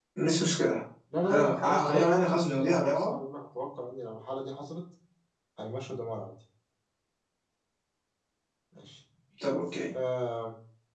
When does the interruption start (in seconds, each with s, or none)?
1.2 s